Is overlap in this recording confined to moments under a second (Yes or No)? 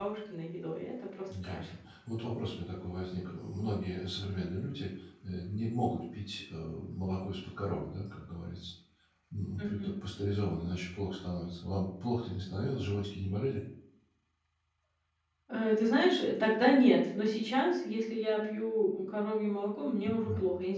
Yes